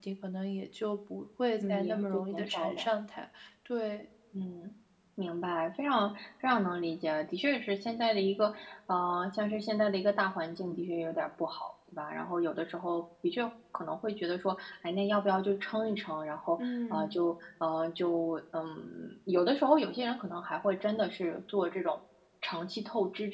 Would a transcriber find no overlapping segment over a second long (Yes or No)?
No